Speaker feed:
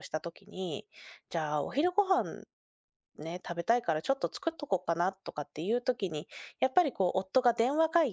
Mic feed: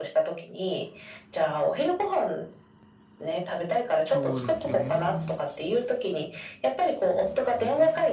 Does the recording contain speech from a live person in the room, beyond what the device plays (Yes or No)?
Yes